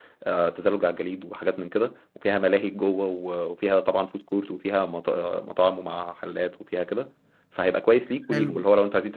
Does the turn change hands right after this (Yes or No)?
No